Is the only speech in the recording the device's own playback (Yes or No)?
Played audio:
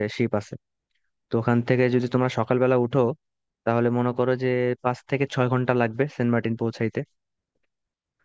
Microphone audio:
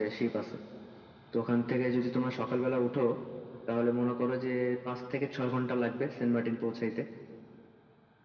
Yes